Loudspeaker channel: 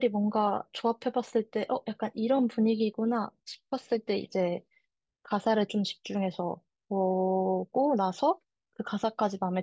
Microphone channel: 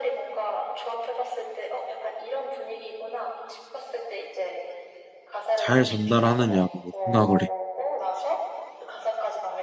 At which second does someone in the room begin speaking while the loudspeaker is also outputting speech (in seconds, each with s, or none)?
5.6 s